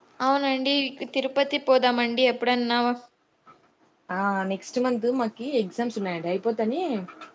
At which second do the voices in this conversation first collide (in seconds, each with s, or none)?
none